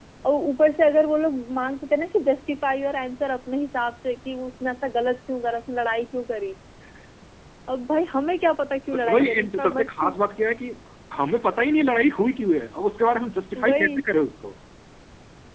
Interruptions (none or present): present